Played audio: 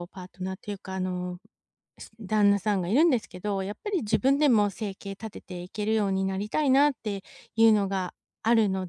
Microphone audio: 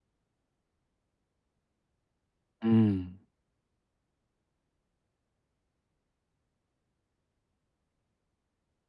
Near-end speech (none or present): present